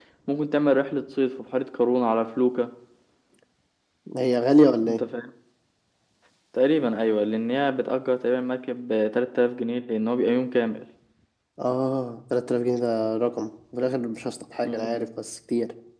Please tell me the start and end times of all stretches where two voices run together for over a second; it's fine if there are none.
none

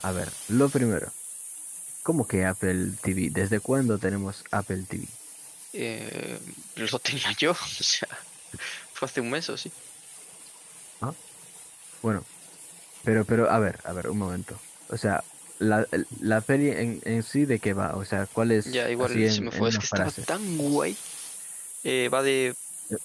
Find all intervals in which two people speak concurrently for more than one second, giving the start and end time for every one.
18.6-20.1

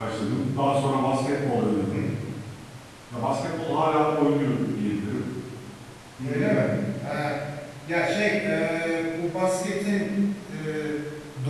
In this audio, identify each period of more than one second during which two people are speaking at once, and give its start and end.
none

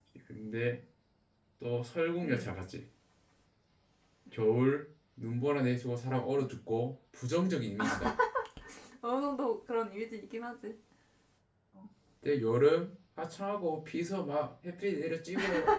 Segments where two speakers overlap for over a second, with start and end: none

